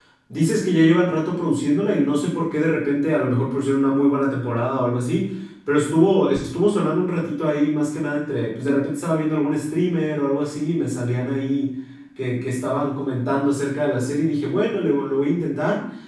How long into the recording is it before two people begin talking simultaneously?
none

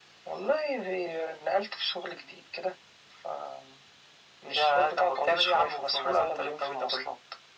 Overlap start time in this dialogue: 4.8 s

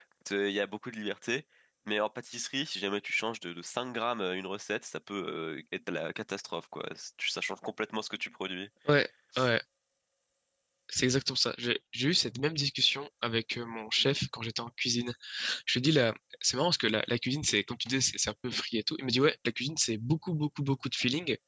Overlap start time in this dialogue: none

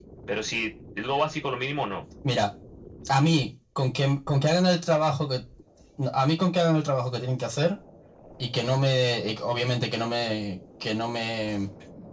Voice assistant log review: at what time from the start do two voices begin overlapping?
none

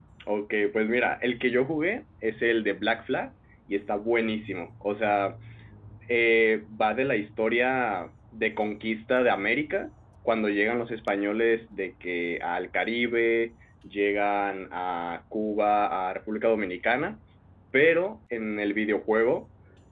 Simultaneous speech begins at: none

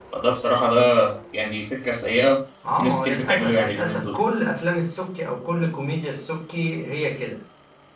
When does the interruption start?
2.6 s

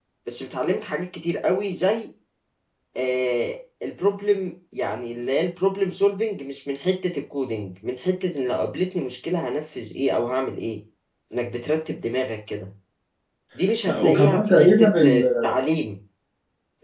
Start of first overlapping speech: 13.9 s

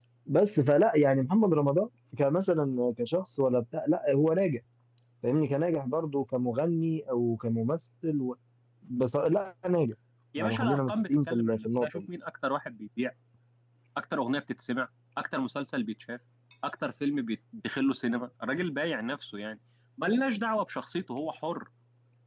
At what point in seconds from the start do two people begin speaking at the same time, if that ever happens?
10.4 s

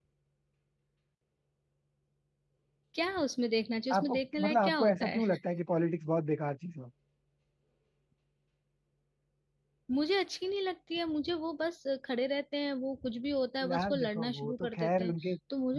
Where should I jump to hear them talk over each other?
4.0 s

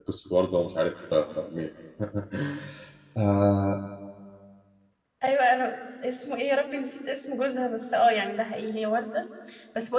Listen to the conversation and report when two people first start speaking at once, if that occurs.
none

